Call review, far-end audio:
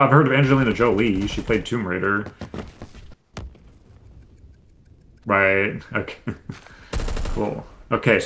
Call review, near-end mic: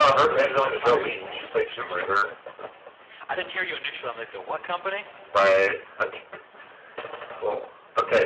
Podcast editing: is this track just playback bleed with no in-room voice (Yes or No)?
No